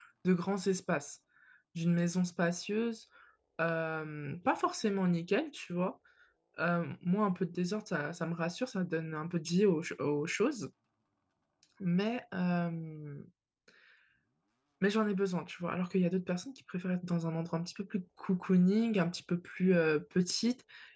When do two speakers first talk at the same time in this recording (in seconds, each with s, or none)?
none